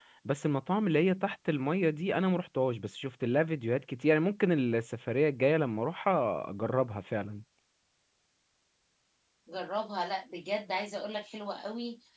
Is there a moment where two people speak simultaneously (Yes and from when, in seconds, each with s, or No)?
No